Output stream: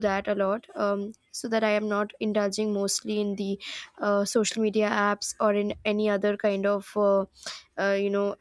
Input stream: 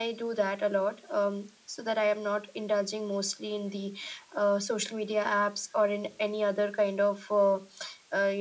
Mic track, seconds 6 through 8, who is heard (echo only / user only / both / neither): echo only